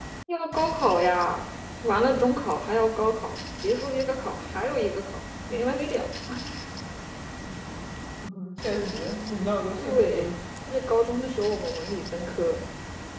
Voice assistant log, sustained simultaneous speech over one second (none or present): none